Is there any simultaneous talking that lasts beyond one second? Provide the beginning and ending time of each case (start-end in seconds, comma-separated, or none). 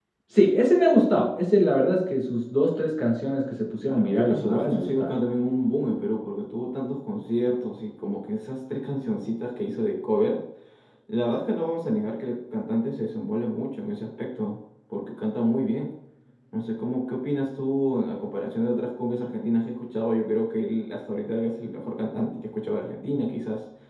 3.8-5.2